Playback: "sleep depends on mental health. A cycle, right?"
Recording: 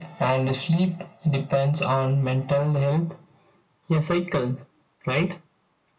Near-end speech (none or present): none